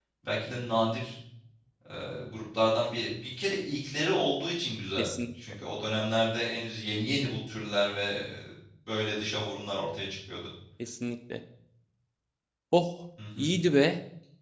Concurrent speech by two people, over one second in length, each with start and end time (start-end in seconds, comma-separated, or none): none